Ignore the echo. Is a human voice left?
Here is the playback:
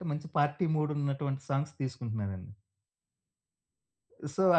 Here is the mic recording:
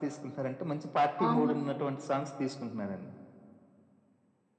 Yes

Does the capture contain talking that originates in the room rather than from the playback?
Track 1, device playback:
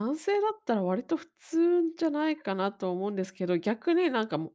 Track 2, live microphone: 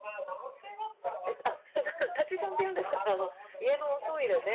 Yes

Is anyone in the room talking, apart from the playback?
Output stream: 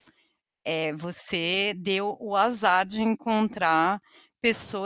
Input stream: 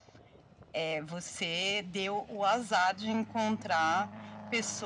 No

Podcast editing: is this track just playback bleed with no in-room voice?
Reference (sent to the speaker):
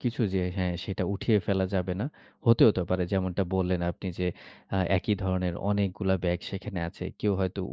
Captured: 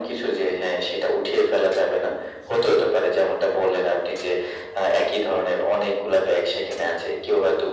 Yes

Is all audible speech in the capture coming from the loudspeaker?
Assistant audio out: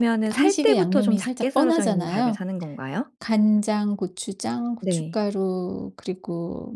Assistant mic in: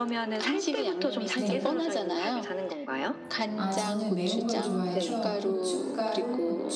No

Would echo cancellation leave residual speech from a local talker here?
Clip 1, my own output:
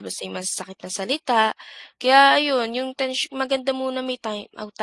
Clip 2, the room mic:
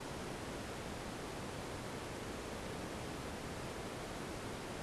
No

